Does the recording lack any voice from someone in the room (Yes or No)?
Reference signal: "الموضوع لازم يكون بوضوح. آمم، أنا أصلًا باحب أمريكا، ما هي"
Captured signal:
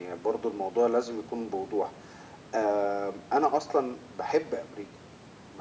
Yes